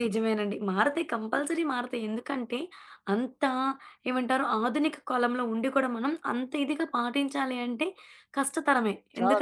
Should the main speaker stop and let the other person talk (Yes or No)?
No